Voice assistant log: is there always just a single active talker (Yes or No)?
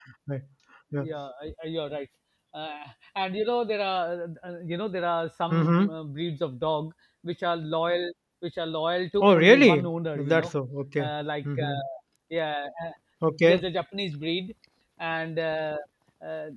No